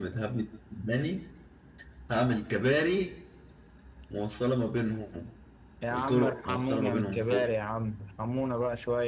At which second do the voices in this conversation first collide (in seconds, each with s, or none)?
5.9 s